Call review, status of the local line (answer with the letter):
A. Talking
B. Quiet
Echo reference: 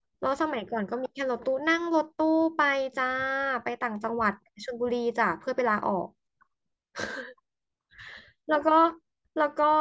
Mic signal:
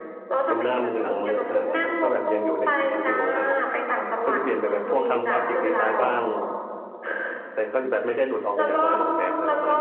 A